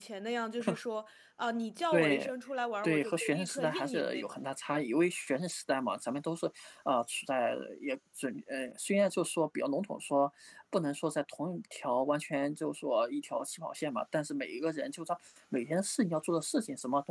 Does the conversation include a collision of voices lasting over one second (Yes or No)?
Yes